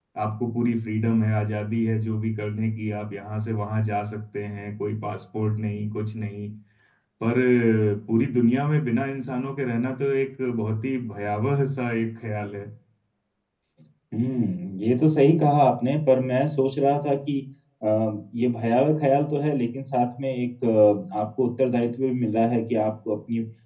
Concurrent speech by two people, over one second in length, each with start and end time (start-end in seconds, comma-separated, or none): none